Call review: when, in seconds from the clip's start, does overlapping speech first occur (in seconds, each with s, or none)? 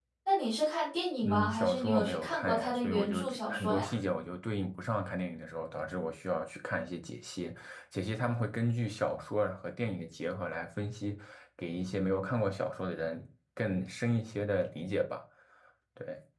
1.2 s